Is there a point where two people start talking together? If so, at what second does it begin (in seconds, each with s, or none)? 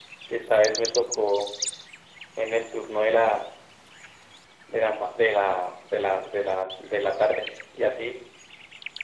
none